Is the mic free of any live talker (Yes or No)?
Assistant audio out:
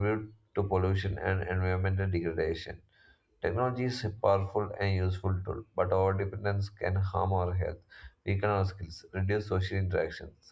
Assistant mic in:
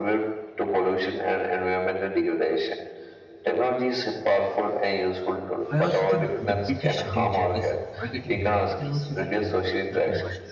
No